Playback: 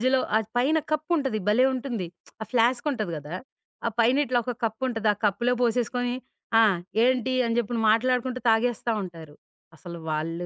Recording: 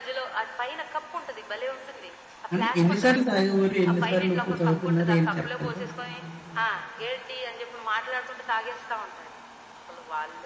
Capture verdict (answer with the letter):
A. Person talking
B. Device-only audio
A